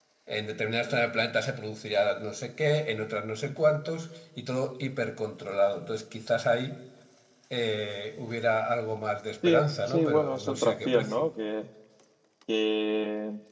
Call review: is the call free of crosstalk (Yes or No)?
No